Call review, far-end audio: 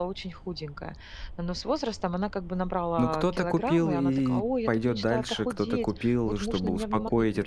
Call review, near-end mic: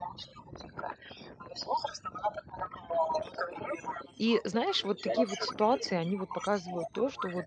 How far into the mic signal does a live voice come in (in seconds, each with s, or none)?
4.2 s